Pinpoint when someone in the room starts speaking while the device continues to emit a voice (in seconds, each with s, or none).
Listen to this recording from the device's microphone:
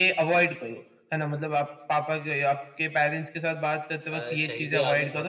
4.1 s